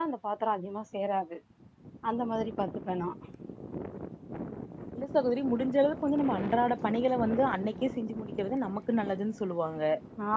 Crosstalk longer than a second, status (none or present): none